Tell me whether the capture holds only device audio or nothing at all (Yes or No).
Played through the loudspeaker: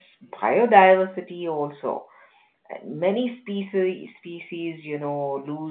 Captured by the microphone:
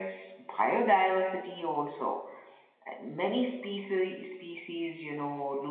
Yes